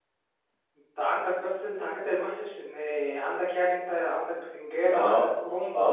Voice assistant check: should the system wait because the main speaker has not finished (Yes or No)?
No